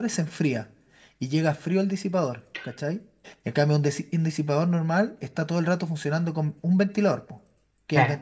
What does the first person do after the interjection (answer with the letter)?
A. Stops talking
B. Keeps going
B